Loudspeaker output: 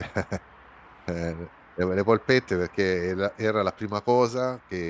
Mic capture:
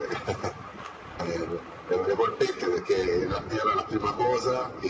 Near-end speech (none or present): none